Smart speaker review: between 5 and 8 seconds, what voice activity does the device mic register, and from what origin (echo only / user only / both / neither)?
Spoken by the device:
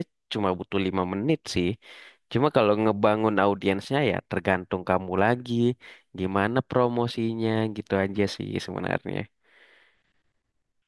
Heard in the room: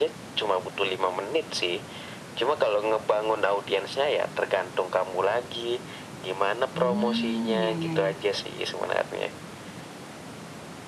both